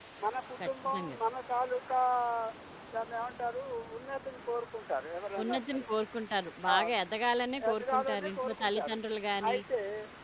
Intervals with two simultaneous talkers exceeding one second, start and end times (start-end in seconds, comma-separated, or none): 7.7-9.0